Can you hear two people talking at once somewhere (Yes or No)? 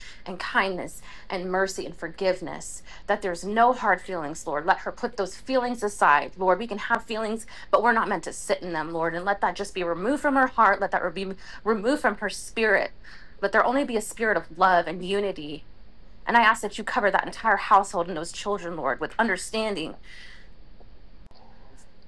No